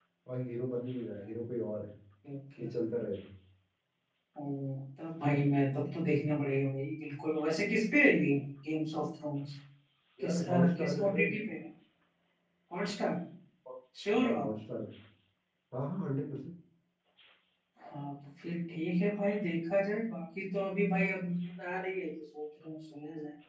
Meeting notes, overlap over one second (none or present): present